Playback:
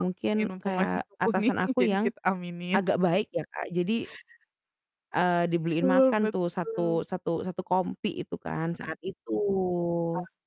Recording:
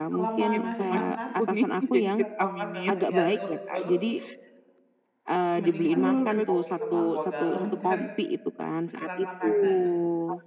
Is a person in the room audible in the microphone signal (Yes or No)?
Yes